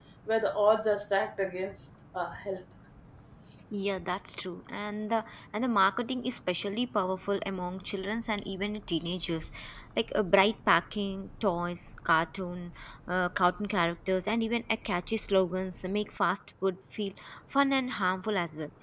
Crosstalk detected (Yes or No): No